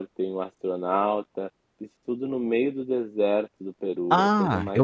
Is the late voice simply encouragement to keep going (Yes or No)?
No